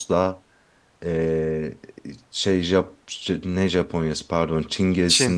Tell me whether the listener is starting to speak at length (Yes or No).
No